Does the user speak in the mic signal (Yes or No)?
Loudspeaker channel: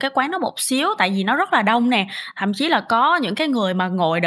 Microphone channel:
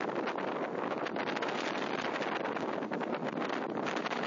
No